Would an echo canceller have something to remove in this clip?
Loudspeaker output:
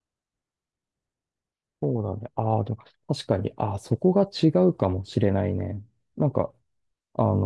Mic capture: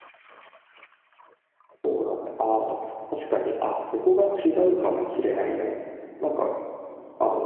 Yes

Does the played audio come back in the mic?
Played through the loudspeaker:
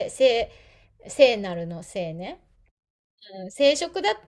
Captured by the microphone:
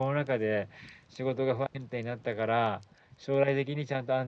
No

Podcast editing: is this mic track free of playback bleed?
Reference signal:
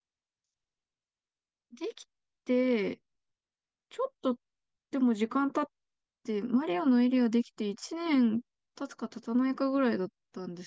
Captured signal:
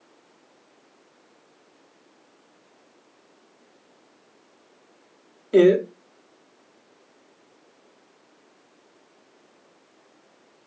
Yes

